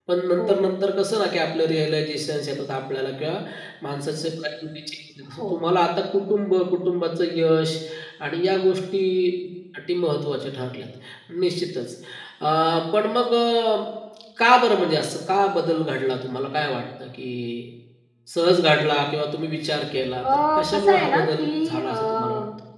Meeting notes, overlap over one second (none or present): present